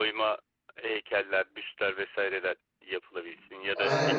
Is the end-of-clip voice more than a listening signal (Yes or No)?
Yes